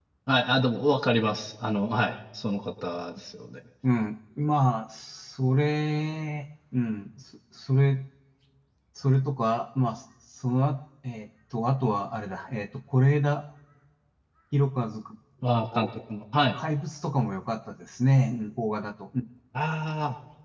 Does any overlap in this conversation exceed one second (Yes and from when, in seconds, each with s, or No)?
No